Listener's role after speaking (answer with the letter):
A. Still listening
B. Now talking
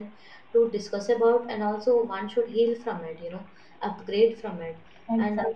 B